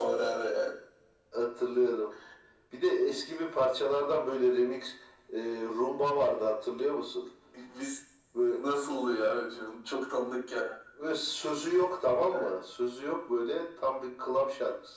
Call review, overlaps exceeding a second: none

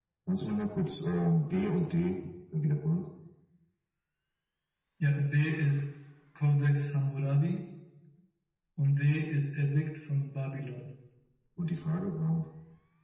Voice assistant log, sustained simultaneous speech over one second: none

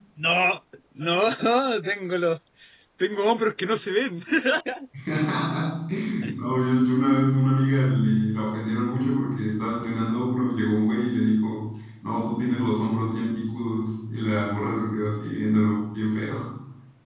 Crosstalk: none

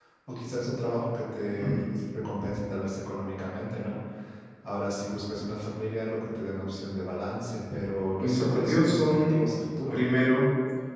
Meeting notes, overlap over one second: present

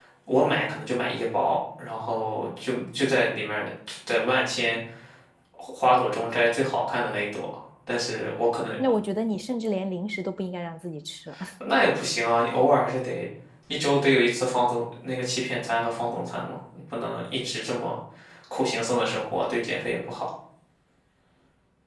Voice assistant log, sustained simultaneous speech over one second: none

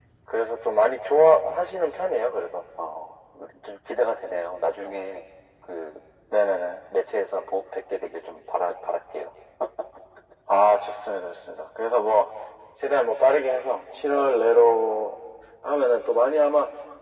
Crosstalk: none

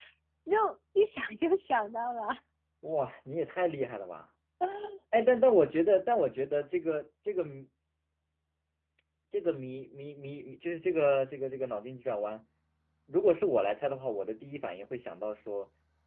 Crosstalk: none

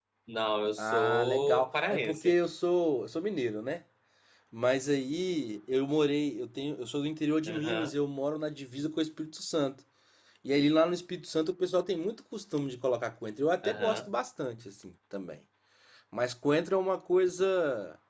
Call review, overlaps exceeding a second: present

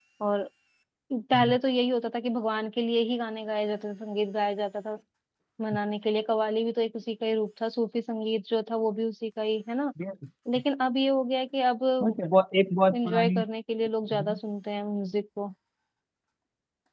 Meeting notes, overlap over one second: none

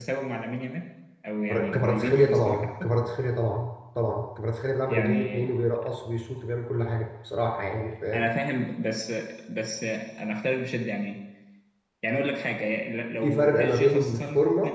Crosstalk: present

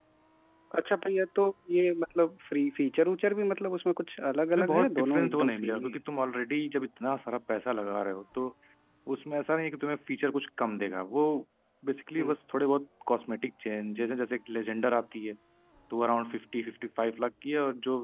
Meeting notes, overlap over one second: present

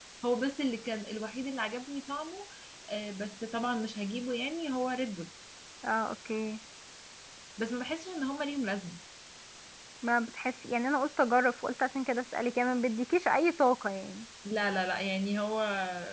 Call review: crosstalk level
none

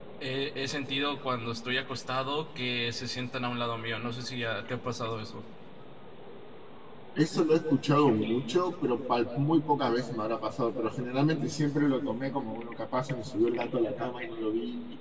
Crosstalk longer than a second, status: none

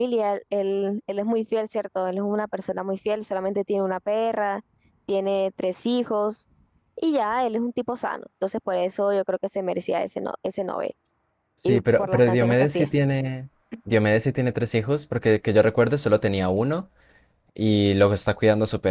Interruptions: present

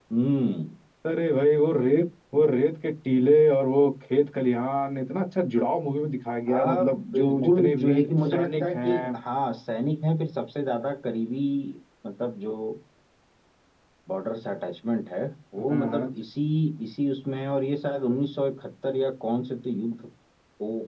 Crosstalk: present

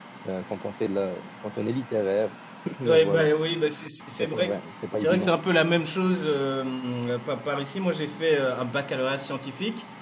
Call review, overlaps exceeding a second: none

